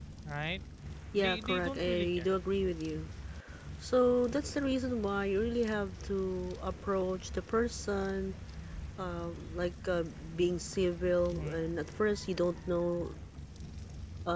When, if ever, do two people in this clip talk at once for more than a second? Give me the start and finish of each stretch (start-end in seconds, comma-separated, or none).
1.1-2.3